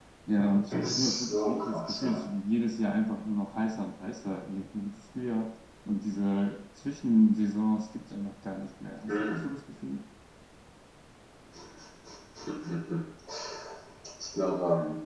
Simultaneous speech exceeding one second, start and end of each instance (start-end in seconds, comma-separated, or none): 0.7-2.2